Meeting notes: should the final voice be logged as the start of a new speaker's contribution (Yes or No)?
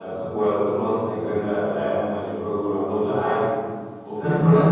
No